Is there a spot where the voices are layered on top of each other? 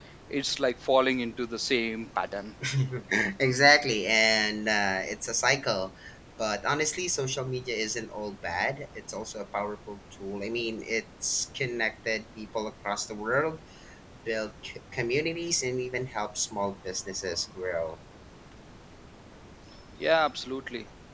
No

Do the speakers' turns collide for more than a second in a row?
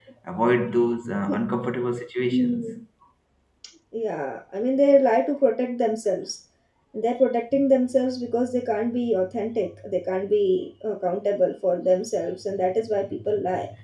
No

